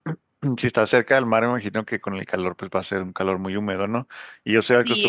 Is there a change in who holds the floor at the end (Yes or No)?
Yes